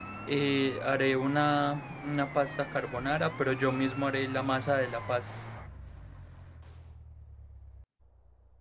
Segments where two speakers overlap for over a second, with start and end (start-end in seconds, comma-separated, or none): none